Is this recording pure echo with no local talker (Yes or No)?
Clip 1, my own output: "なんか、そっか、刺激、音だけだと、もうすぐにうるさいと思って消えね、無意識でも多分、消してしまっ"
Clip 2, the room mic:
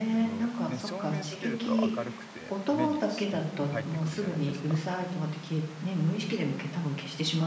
No